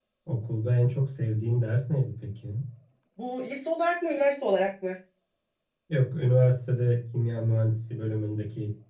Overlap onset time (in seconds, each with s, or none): none